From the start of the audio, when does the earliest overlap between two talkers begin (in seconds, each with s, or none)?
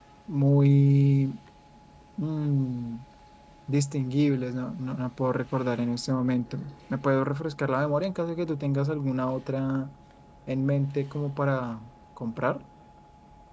none